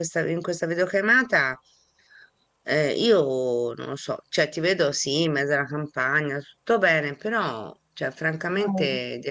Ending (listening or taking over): listening